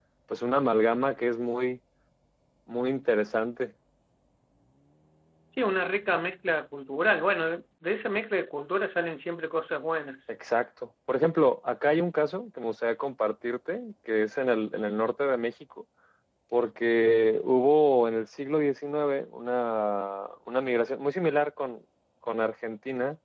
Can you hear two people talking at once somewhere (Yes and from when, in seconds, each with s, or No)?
No